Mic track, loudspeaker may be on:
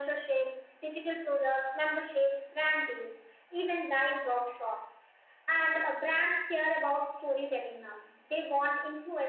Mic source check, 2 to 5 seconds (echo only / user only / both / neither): echo only